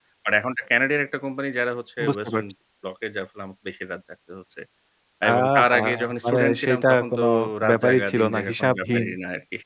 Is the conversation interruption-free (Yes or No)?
No